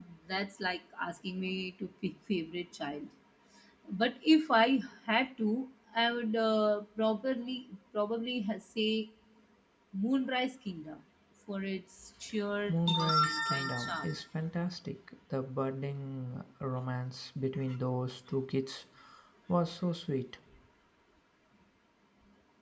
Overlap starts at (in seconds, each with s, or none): 12.7 s